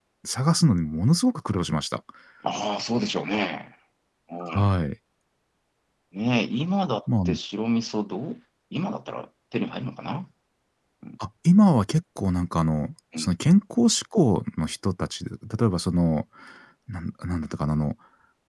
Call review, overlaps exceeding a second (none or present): none